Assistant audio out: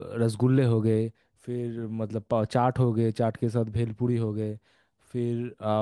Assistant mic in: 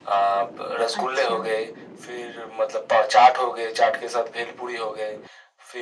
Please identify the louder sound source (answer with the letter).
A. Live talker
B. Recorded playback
B